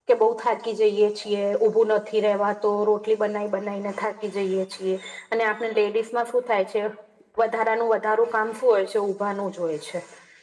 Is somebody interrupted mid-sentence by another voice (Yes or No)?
No